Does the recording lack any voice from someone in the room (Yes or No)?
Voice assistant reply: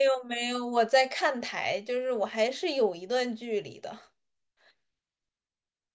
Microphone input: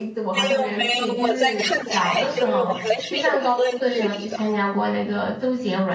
No